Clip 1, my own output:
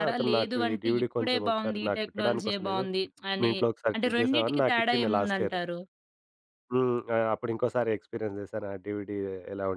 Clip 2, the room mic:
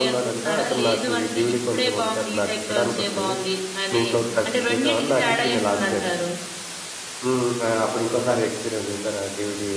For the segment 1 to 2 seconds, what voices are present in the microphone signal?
echo only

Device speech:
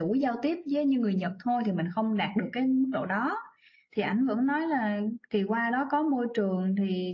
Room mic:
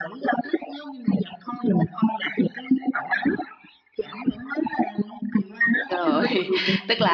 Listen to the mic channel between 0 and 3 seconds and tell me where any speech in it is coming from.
echo only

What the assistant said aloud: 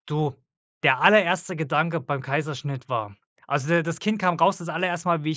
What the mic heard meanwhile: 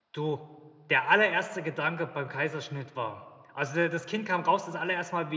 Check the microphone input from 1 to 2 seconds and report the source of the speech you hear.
echo only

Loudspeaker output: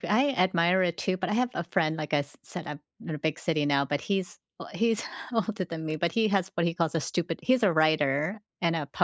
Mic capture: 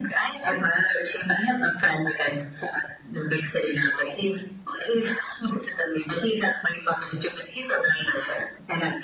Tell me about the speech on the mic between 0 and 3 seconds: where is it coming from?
echo only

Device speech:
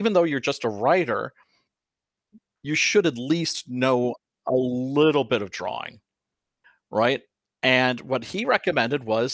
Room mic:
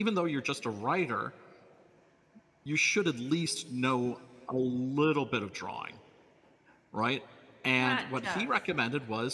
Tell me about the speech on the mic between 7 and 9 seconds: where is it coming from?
both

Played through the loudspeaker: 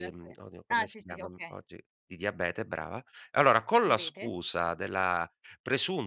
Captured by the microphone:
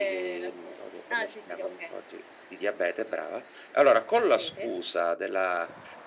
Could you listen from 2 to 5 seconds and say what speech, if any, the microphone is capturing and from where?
echo only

